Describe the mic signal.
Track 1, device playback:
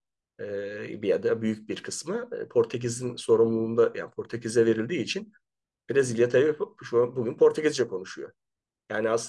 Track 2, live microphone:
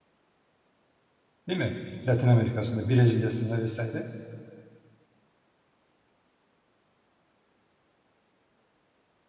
user only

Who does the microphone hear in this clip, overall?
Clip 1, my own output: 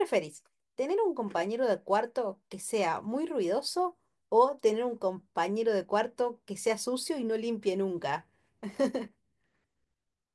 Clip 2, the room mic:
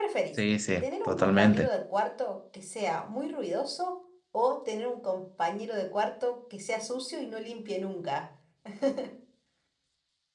both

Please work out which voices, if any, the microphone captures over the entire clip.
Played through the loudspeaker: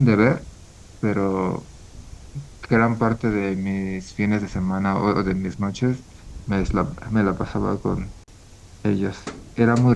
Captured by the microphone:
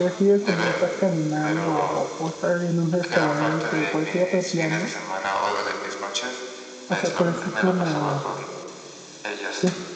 both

